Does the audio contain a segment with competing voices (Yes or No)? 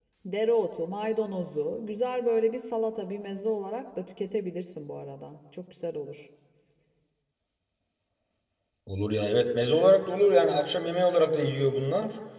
No